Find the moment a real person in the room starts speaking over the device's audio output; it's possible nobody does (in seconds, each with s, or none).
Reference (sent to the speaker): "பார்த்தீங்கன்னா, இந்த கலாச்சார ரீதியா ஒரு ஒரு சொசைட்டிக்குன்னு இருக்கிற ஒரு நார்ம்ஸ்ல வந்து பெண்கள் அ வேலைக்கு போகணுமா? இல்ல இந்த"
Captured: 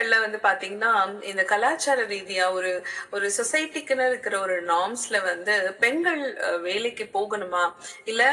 none